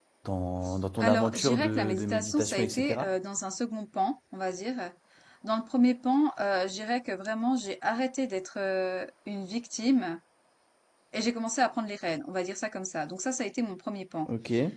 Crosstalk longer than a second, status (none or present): present